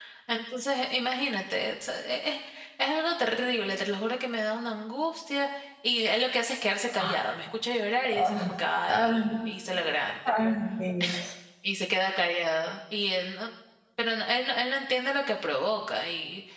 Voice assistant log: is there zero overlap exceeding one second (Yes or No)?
Yes